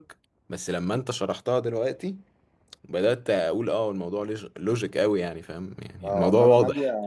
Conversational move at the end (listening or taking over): taking over